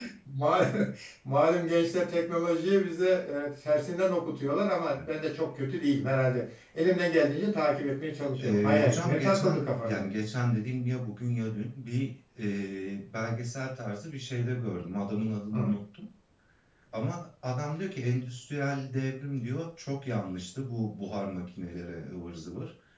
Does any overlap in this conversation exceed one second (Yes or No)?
Yes